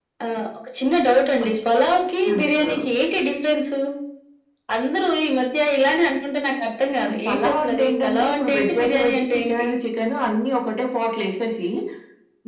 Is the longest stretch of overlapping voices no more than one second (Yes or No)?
No